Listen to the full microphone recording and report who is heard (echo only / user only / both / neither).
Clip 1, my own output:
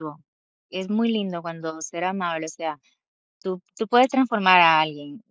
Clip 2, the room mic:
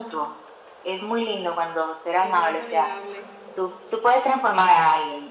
both